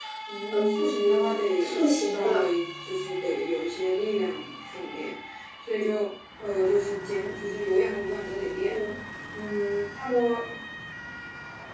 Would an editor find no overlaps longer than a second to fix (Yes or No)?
No